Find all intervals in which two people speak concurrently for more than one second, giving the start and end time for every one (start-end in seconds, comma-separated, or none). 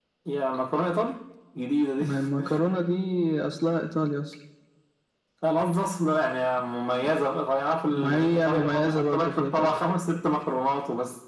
7.9-9.8